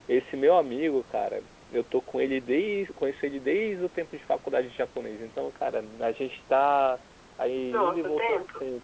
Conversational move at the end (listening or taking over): listening